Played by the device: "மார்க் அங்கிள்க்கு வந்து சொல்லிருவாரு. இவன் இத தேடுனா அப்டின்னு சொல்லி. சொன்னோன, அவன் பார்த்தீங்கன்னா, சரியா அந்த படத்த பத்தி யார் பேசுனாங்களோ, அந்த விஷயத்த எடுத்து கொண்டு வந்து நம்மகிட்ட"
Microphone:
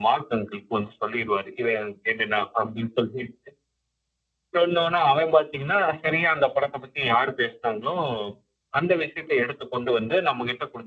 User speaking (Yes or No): No